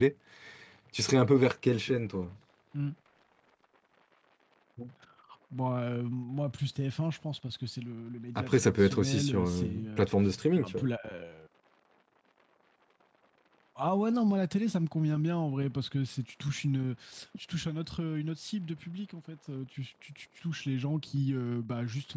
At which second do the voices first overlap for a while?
8 s

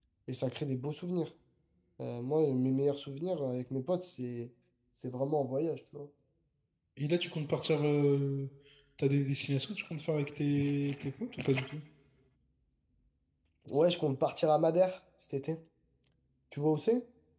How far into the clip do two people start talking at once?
none

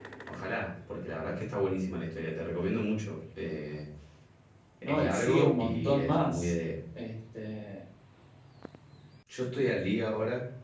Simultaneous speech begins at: 5 s

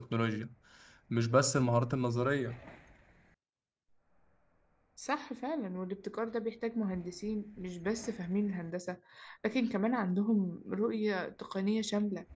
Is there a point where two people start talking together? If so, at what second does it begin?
none

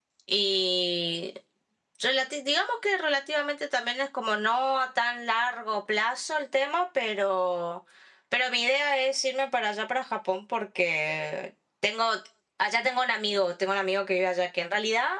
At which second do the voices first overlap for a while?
none

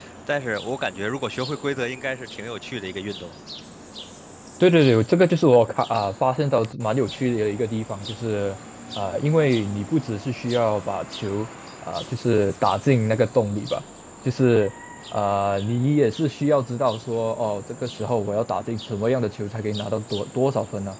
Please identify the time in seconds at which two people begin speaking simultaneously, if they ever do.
none

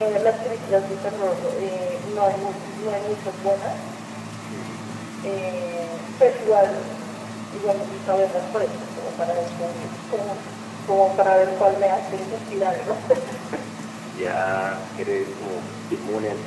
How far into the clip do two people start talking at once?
none

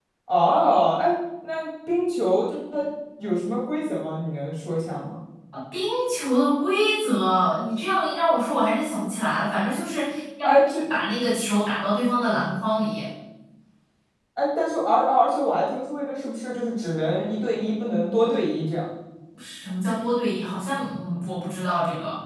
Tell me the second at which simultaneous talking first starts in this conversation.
none

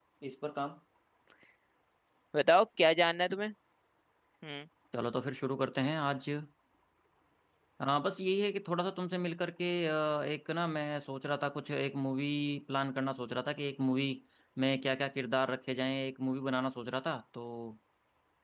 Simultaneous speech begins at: none

